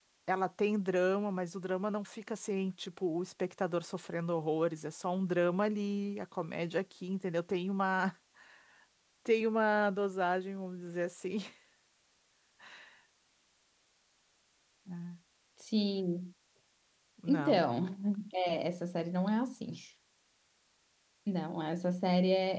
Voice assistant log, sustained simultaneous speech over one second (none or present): none